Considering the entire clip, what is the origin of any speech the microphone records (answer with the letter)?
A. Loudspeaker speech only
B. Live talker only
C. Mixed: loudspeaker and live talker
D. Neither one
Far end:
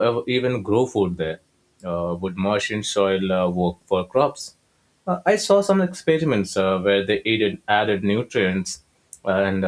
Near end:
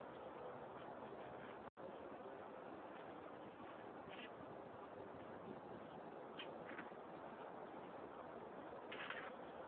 D